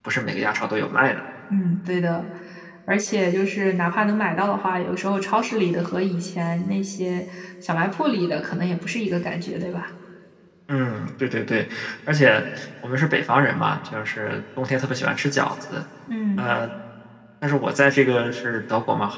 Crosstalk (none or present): none